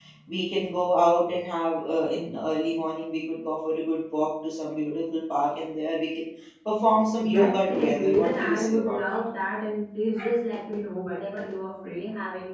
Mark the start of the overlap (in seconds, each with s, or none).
7.2 s